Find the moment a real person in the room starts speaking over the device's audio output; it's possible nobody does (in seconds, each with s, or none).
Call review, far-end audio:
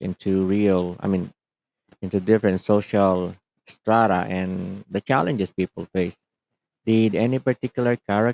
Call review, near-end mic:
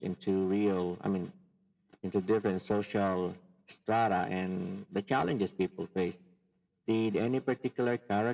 none